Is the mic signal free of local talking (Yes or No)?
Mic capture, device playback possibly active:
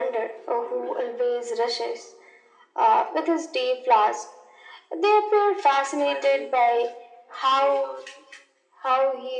Yes